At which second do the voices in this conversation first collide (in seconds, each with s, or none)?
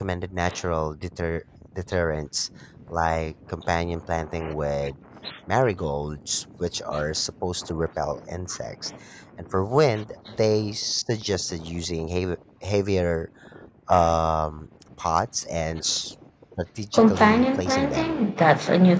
16.9 s